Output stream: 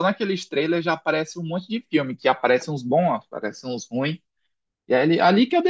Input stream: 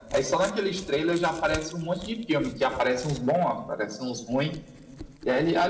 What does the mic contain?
echo only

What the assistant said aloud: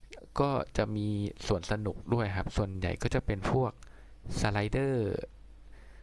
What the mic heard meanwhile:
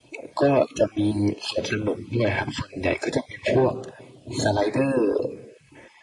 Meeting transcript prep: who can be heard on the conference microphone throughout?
echo only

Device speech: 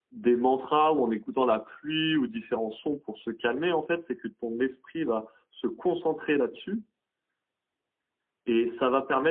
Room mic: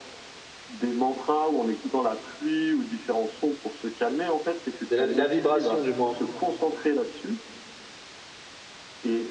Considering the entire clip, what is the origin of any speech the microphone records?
both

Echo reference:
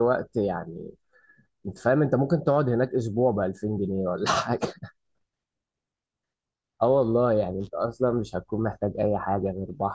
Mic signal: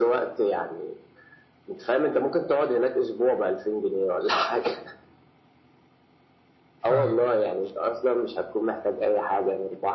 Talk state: both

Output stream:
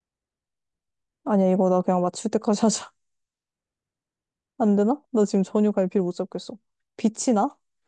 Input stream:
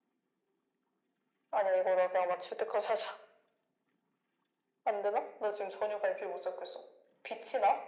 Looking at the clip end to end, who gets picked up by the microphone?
echo only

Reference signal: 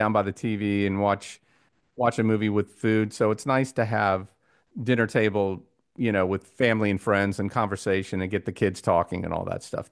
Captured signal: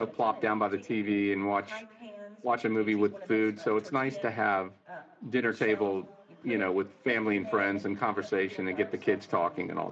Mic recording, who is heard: both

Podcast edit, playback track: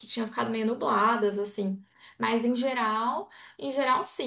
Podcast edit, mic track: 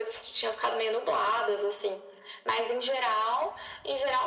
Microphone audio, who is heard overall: echo only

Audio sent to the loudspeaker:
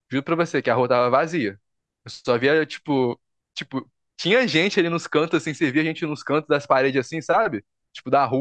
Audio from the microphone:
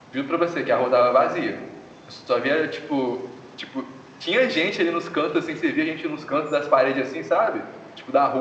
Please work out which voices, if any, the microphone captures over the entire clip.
echo only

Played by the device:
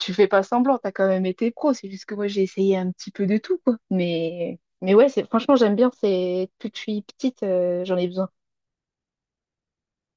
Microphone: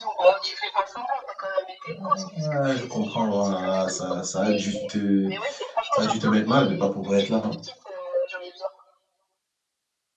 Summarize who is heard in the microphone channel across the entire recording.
both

